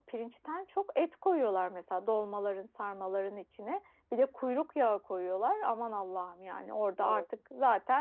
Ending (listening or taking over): listening